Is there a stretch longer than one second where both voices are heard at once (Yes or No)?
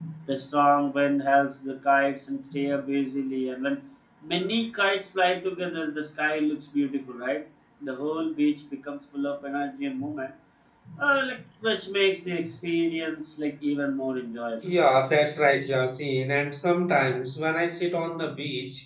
No